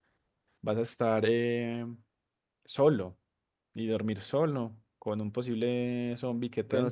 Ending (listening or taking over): taking over